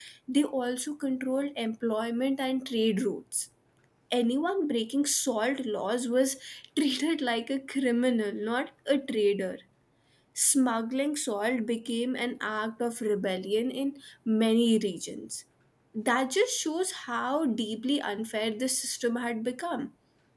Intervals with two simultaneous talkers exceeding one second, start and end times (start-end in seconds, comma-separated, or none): none